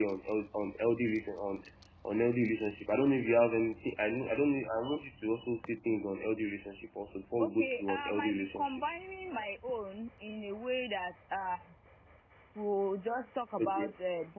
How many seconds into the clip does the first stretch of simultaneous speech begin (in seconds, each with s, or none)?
7.4 s